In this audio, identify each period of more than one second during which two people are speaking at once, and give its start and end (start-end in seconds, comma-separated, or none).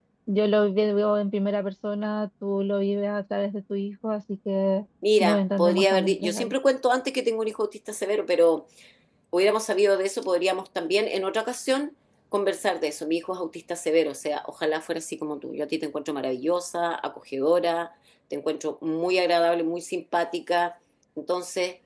5.2-6.5